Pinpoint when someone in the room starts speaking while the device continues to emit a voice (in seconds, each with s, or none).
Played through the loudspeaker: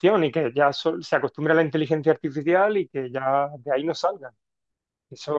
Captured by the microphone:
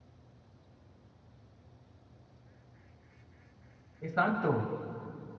4.0 s